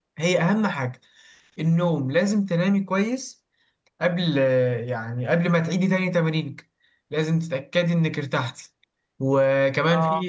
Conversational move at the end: listening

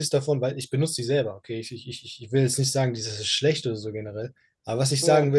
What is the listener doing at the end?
listening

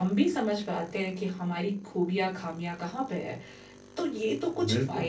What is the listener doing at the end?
listening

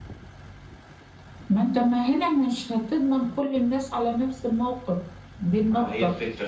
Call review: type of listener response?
taking over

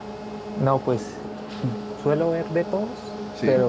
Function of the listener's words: listening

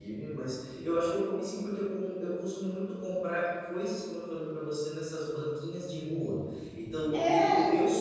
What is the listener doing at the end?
listening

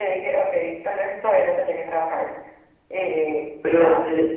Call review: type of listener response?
taking over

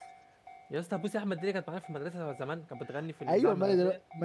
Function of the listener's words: taking over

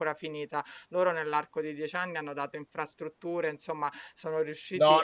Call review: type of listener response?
taking over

